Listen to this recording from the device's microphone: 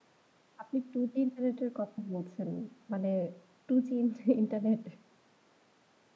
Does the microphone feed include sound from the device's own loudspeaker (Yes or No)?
No